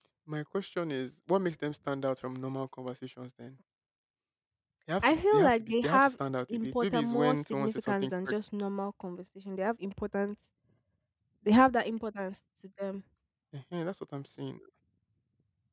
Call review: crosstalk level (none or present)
present